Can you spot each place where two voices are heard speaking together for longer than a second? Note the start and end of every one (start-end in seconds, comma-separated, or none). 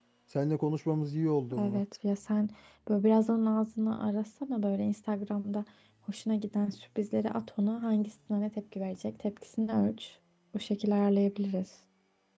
none